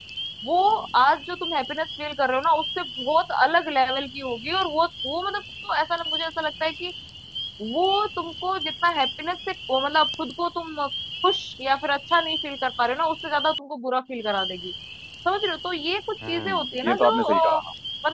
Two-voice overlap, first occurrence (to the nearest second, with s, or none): 16 s